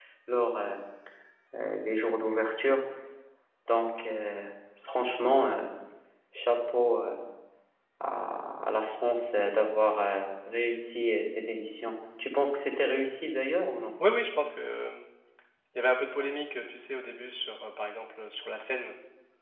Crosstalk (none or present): none